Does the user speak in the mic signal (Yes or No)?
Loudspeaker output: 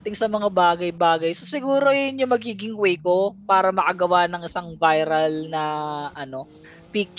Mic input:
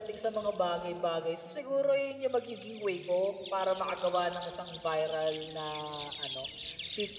No